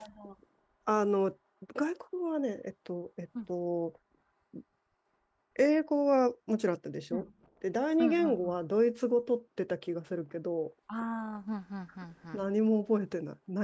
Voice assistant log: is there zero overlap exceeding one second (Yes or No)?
Yes